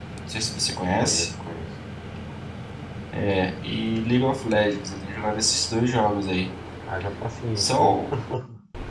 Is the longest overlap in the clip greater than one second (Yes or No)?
No